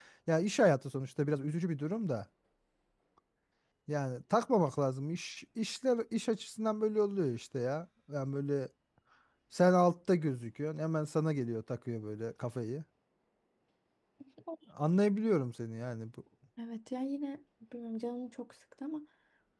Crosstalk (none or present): none